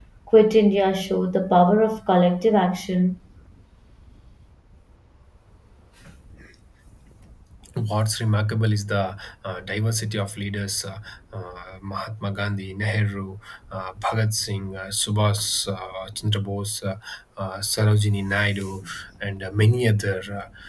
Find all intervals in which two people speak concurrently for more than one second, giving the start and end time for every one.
none

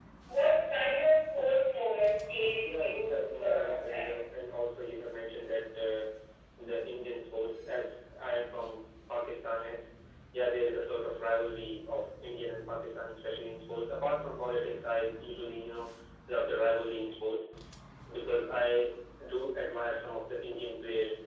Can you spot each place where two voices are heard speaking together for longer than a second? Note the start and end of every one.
2.5-4.1

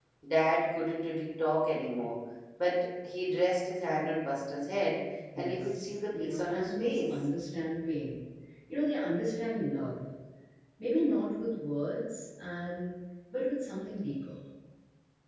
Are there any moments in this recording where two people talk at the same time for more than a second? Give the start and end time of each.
5.4-7.1

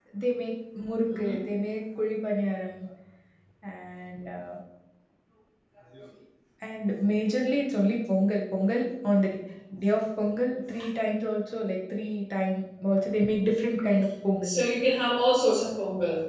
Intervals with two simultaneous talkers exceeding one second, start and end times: none

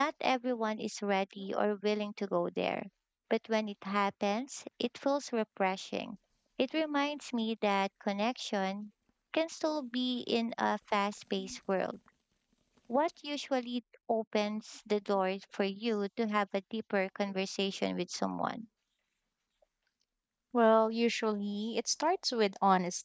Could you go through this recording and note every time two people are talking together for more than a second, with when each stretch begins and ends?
none

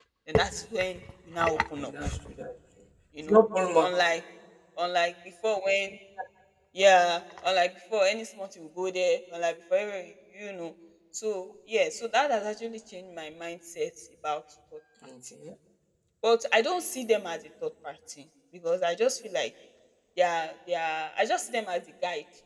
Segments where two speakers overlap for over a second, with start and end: none

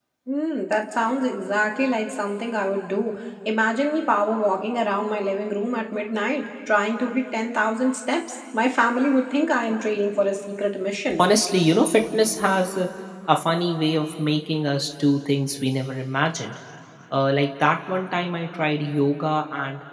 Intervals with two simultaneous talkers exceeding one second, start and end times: none

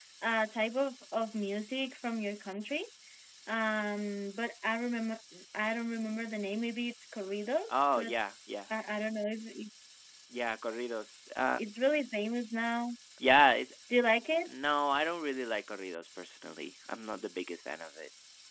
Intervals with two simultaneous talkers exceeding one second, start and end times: none

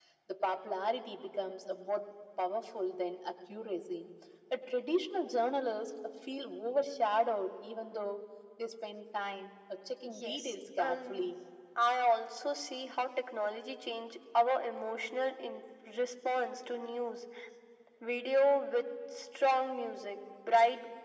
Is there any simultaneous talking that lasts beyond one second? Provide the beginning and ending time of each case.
10.1-11.3

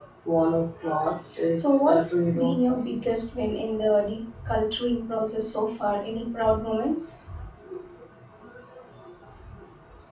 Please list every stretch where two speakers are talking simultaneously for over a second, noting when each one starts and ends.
1.5-3.4

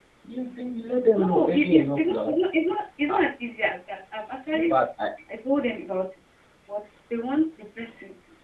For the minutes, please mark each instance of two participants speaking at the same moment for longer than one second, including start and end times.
1.2-2.4

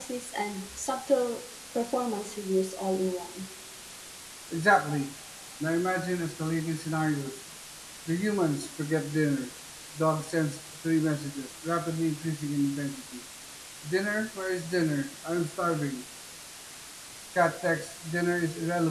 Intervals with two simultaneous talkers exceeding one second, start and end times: none

